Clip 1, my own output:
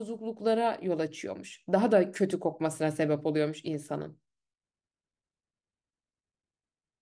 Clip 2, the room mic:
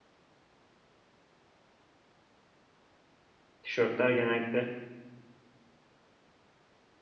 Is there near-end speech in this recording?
Yes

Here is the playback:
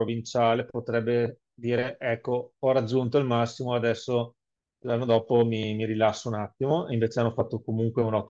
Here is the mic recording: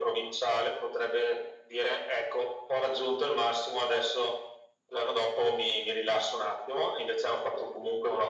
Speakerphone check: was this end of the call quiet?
Yes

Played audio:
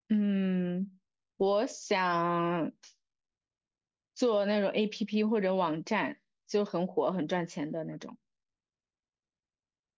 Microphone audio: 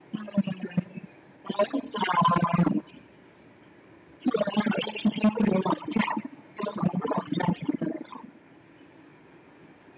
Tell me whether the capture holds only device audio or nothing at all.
Yes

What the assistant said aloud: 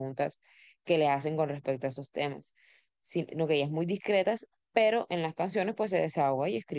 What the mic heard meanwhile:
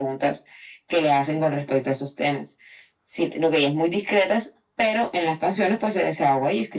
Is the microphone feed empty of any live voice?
Yes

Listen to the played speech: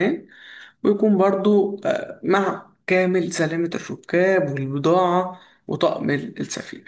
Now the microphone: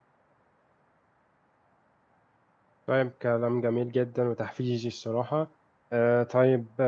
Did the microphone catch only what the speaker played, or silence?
No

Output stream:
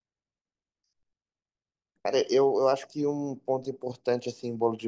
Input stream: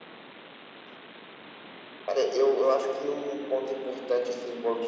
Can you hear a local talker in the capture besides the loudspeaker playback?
No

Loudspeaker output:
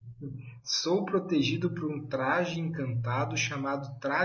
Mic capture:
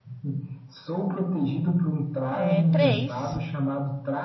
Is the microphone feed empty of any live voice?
No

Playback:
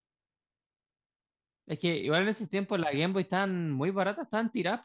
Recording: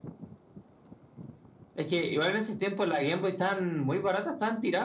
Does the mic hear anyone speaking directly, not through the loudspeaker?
No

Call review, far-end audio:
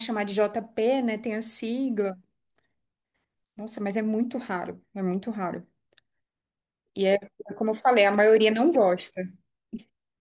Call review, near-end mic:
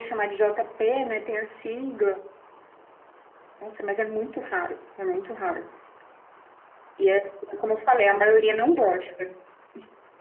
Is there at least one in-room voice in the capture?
No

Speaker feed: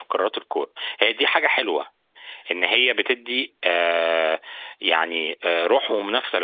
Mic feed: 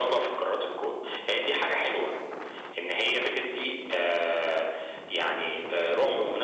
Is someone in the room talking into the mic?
No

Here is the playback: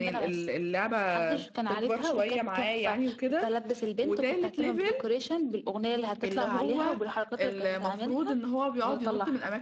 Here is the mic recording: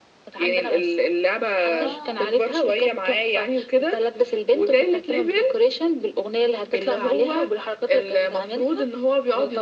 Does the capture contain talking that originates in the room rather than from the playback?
Yes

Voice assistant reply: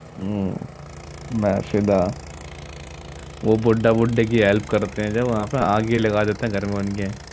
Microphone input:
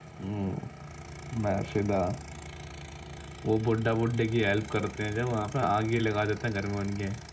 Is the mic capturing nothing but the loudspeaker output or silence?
Yes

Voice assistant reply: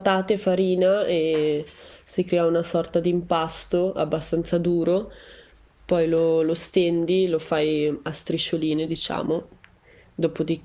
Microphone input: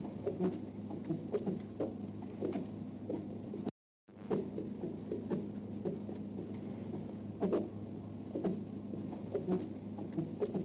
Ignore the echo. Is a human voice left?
No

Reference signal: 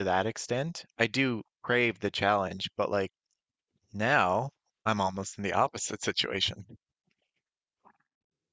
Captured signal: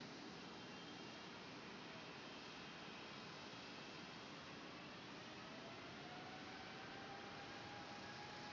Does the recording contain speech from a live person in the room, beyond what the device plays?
No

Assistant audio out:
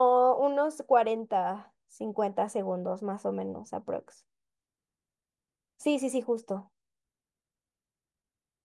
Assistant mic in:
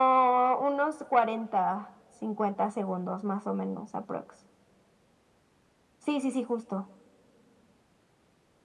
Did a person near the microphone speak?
No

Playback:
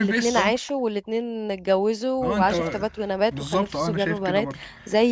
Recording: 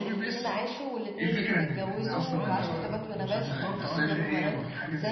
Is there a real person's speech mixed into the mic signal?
Yes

